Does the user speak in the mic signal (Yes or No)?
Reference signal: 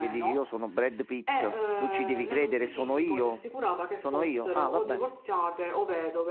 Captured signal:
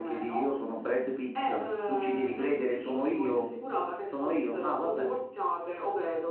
No